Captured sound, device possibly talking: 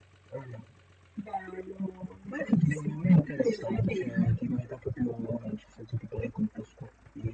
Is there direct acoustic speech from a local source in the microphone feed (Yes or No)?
No